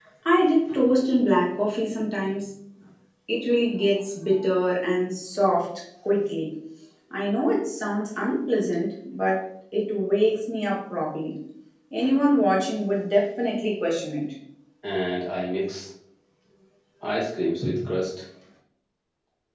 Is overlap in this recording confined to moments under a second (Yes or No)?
Yes